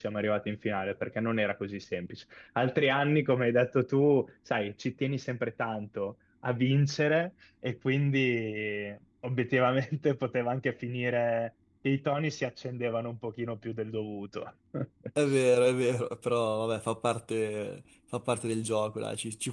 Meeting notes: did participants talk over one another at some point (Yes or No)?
No